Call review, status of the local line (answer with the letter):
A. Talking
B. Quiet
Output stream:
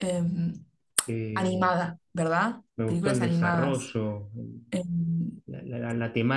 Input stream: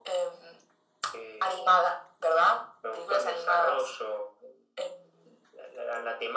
B